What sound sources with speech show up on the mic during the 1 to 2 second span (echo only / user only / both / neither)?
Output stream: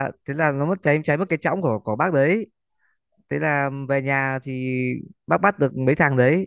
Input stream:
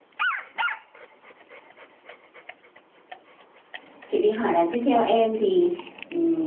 neither